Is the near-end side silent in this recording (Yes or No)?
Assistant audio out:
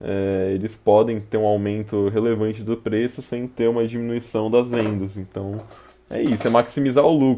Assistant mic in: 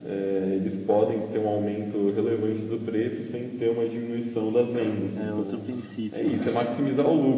No